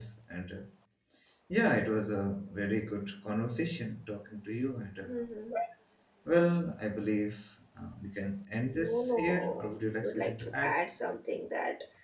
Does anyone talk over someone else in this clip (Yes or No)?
Yes